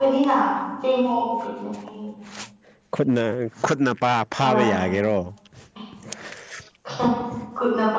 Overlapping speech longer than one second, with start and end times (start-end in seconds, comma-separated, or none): none